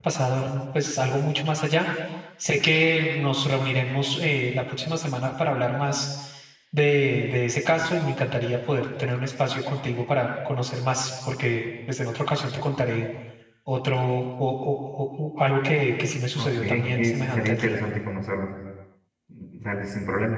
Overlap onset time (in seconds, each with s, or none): 16.4 s